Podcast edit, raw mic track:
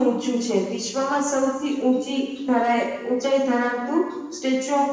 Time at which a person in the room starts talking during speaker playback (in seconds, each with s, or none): none